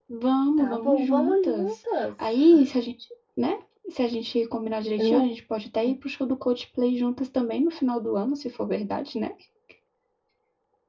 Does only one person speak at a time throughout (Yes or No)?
No